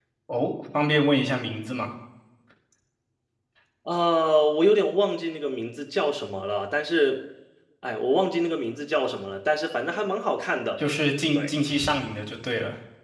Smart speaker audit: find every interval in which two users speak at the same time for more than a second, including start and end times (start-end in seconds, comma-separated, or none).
none